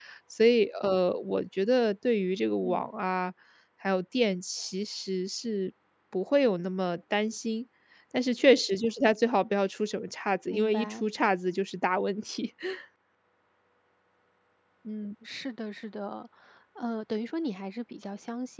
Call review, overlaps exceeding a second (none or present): none